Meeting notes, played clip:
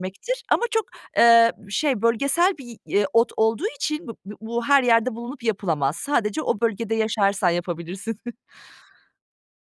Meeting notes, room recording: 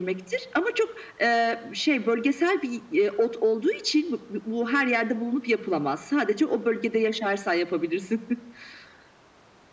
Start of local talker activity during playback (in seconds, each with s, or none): none